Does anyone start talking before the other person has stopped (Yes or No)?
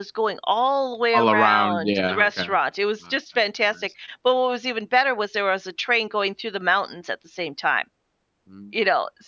Yes